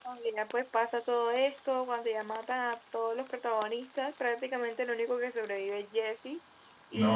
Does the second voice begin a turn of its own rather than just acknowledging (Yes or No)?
Yes